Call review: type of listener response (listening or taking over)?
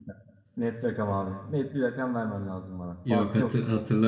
taking over